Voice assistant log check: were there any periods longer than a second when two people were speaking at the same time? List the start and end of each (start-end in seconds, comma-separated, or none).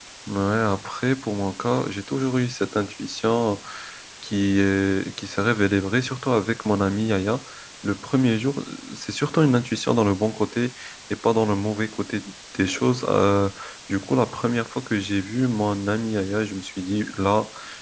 none